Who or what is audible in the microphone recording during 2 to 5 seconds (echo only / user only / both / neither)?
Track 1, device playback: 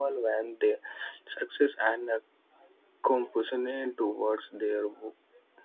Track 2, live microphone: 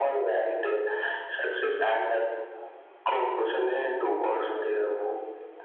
echo only